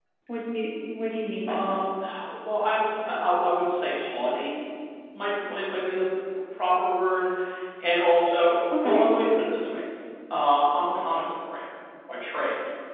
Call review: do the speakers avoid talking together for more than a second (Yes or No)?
Yes